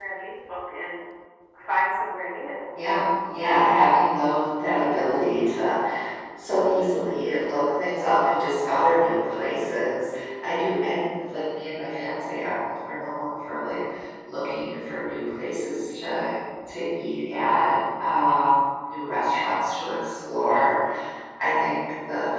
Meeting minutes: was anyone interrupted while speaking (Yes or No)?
No